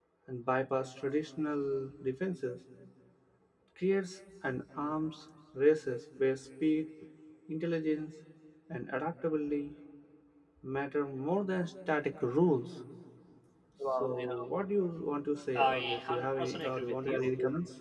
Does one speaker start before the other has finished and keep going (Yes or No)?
Yes